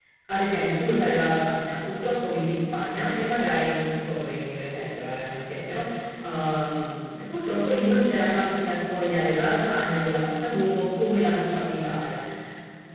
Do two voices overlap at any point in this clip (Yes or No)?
No